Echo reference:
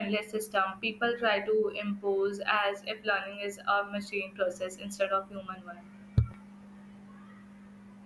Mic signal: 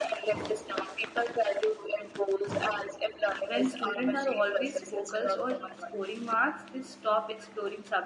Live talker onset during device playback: 3.5 s

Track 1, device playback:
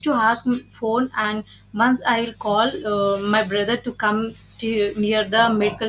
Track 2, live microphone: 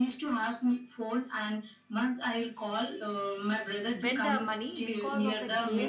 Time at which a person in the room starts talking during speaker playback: 3.9 s

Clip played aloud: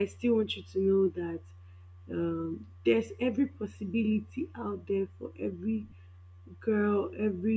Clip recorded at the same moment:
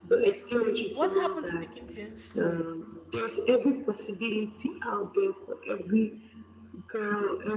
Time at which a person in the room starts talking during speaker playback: 0.9 s

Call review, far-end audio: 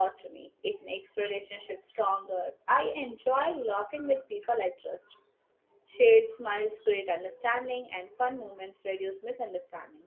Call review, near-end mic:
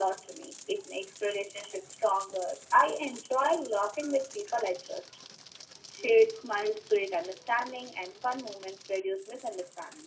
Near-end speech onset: none

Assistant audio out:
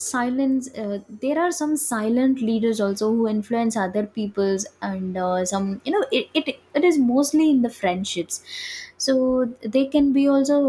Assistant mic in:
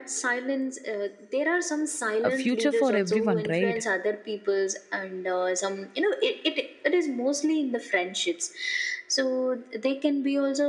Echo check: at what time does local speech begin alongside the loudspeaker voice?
2.2 s

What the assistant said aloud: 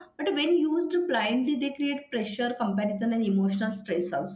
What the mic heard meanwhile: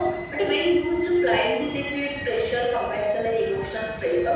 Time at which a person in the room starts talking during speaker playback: none

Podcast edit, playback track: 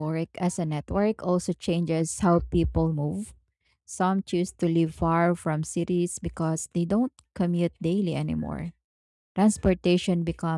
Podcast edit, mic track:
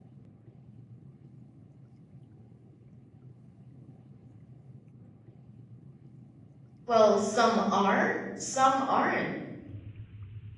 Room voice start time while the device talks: 6.8 s

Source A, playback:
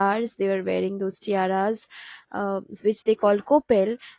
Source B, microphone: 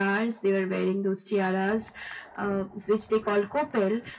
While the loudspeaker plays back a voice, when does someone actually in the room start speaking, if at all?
none

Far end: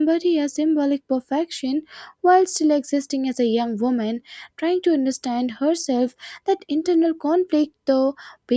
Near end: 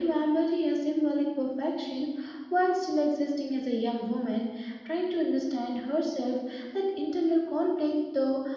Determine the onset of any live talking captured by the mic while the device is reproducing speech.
none

